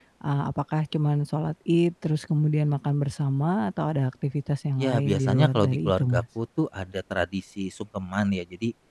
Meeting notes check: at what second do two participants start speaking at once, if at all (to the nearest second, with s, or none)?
5 s